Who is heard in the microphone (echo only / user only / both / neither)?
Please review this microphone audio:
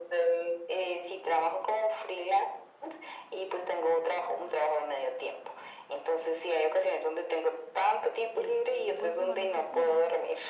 both